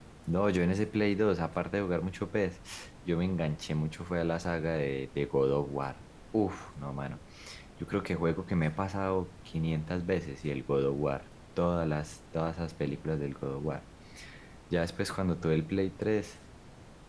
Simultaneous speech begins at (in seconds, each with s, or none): none